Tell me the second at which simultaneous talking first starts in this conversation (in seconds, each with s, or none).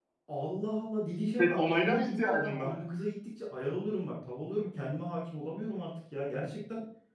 1.4 s